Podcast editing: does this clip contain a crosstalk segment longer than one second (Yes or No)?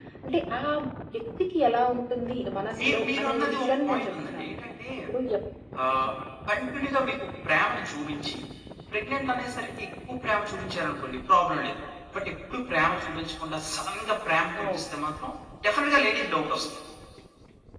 Yes